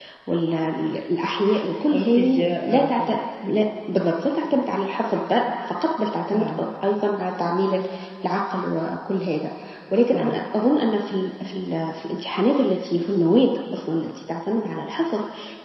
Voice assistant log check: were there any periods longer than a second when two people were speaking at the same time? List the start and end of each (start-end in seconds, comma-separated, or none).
1.9-3.1